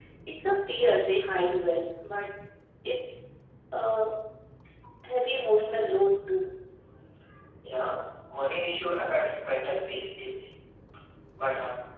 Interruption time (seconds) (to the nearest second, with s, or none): none